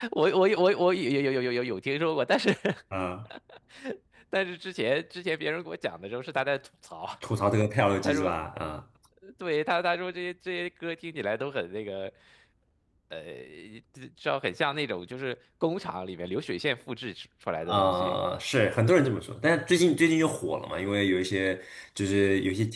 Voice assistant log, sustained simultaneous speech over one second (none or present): none